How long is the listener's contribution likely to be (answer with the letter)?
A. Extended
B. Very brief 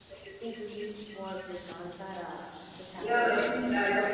A